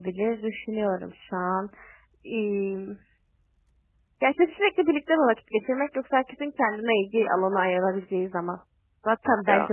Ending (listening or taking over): listening